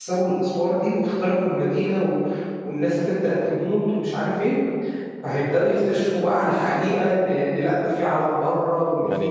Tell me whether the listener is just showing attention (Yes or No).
No